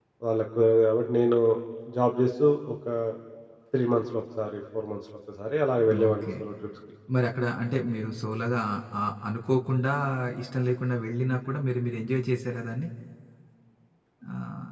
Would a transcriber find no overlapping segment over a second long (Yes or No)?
Yes